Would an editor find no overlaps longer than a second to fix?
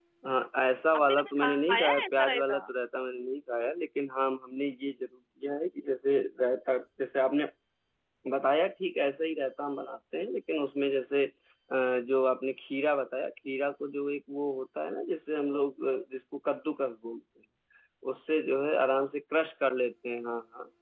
No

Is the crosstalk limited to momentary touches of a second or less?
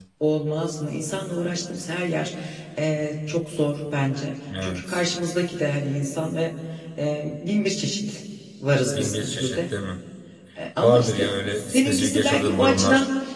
No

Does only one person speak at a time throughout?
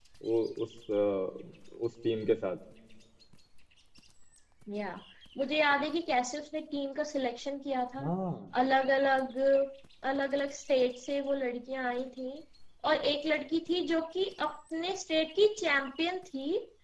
Yes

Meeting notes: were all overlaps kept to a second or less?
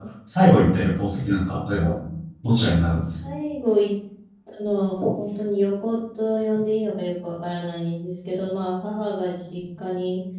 Yes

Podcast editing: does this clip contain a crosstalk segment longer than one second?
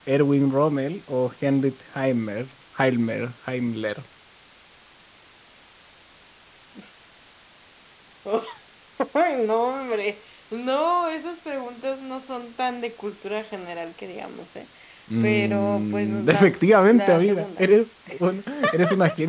Yes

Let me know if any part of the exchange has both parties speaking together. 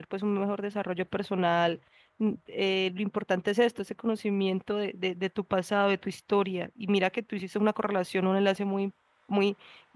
No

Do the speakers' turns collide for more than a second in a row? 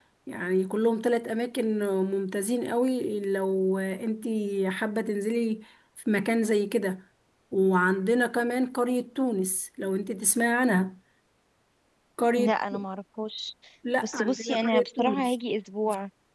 Yes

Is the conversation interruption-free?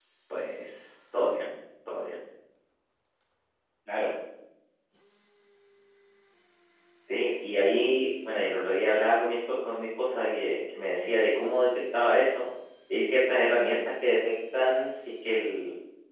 Yes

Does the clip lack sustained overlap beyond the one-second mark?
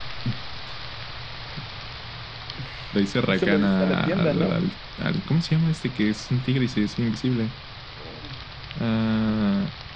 No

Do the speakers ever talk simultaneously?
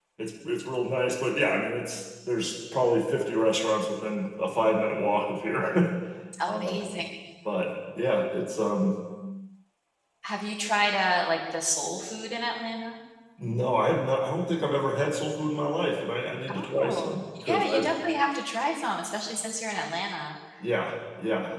Yes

